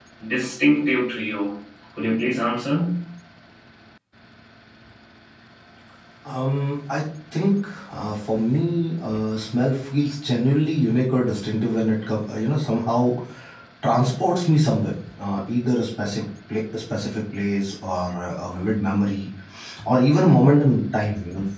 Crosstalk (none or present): none